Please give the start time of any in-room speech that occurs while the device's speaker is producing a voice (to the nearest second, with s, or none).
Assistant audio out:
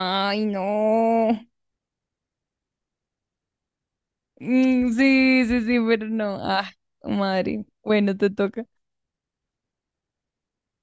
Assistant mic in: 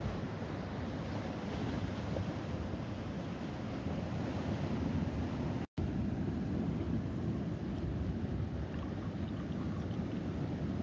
none